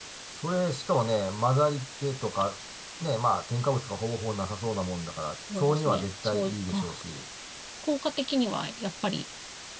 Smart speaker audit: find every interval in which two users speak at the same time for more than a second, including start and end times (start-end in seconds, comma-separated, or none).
5.7-6.9